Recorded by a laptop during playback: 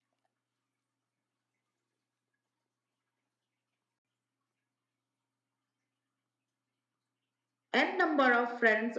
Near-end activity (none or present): present